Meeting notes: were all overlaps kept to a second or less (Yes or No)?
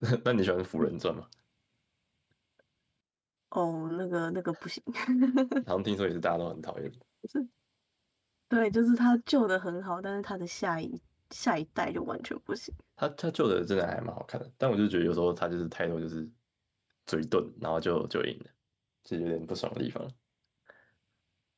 Yes